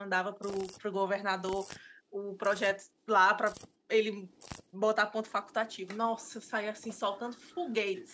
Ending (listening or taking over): taking over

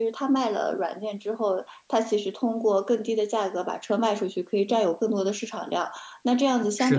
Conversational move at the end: listening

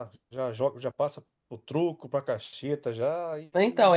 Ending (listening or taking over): taking over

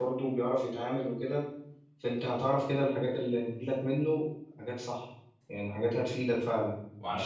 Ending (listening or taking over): taking over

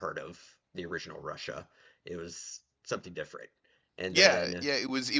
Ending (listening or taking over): taking over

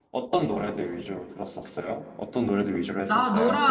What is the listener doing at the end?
taking over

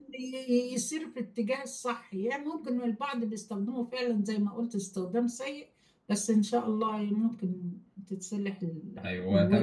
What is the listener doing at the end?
taking over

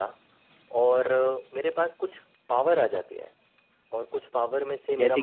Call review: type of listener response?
listening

